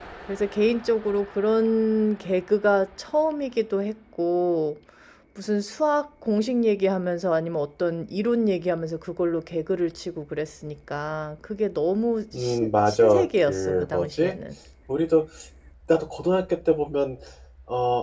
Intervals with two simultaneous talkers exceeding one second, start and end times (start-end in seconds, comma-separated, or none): 12.3-14.3